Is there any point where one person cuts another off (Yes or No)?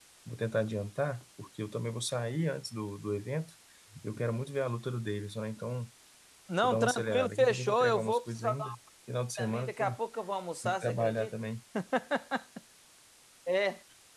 Yes